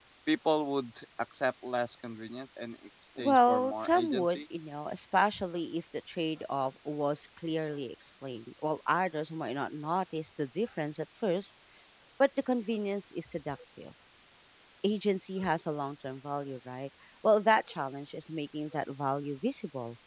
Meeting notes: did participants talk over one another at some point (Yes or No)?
Yes